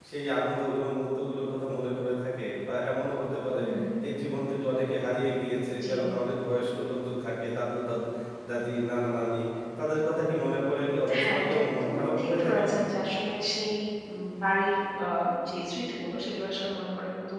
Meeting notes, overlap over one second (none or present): present